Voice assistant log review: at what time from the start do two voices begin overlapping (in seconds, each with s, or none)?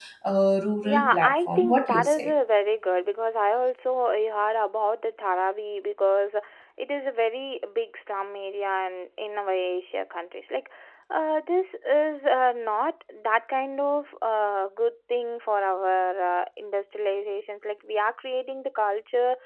0.8 s